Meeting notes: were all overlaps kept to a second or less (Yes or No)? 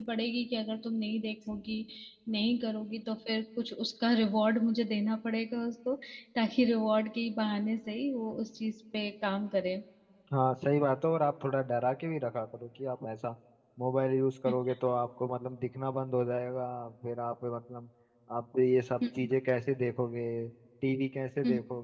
Yes